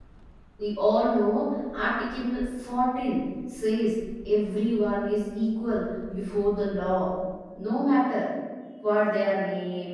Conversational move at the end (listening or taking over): listening